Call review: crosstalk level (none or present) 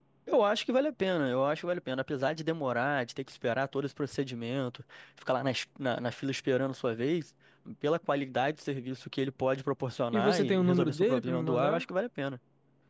present